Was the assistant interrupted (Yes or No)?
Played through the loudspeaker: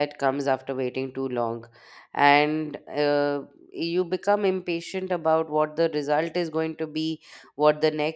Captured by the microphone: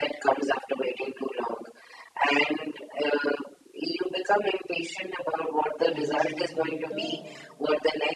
Yes